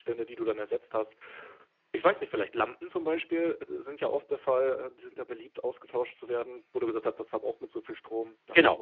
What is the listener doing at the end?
taking over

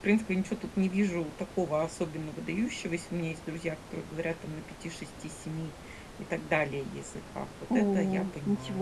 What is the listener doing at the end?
taking over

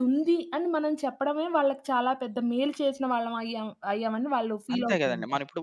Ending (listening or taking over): taking over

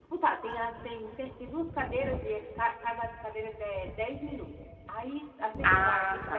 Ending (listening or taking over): listening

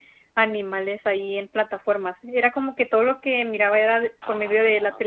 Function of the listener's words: listening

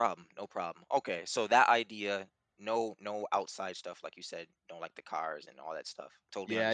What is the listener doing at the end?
taking over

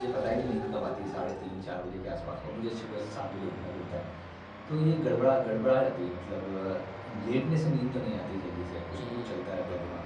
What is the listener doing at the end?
taking over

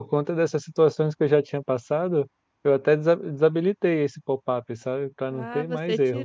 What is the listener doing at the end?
taking over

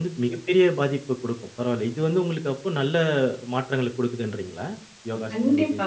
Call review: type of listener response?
taking over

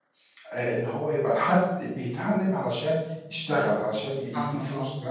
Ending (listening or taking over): listening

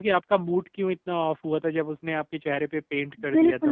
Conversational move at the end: taking over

